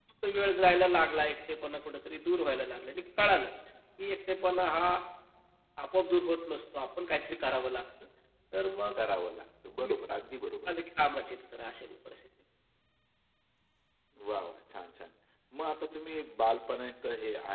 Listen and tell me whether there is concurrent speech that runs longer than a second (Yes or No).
No